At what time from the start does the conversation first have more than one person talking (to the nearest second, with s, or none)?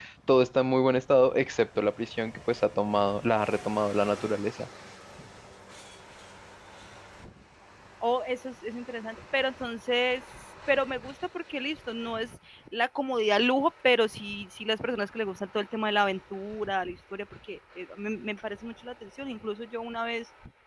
none